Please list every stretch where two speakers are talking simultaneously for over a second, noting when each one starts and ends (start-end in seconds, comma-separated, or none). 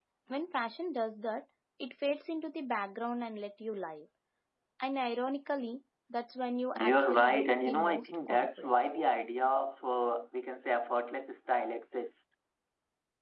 6.8-8.8